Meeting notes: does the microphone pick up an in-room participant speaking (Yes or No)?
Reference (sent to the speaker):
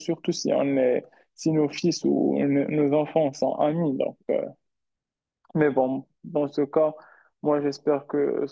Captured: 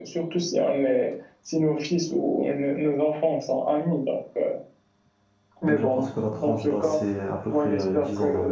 Yes